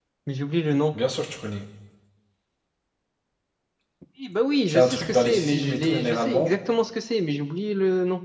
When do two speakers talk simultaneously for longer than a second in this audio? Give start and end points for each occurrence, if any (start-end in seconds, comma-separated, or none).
4.7-6.5